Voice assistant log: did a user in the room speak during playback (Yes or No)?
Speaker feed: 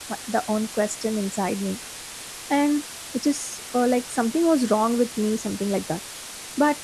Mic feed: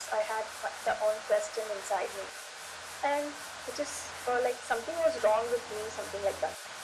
No